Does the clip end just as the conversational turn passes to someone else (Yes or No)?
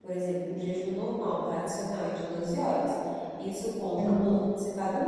No